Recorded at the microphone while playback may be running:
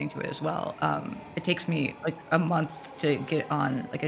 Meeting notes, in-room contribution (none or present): present